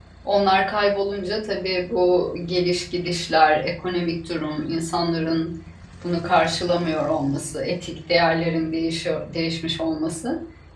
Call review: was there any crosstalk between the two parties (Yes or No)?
No